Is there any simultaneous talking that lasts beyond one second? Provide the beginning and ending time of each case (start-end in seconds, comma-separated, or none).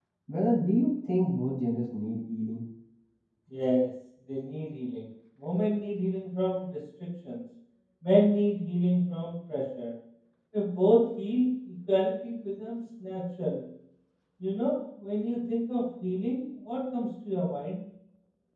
none